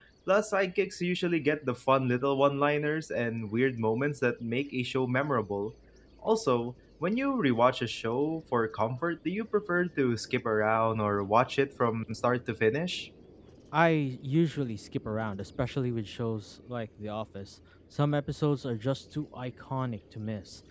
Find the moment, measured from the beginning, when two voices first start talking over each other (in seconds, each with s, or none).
none